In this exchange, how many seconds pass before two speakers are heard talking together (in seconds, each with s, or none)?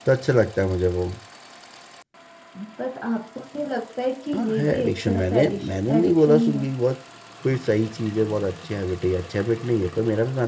4.3 s